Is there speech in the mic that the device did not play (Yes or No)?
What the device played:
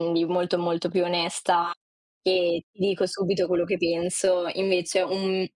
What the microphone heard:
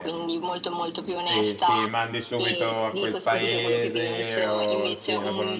Yes